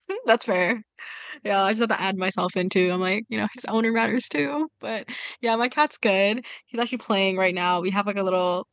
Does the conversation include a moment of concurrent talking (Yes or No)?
No